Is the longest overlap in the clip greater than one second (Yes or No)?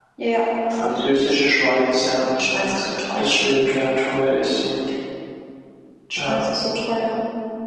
No